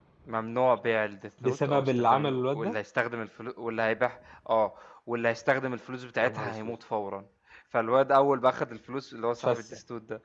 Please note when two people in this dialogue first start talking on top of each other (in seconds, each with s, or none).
1.4 s